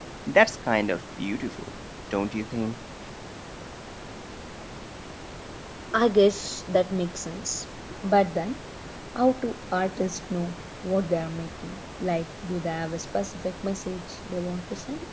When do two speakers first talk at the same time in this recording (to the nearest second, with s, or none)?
none